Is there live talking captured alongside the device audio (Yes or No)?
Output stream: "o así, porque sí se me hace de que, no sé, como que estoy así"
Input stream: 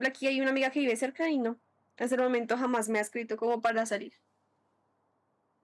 Yes